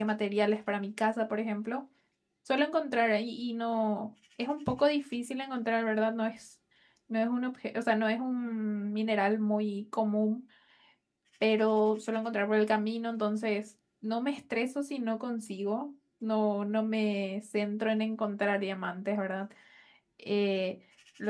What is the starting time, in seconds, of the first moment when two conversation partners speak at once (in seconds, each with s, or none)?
none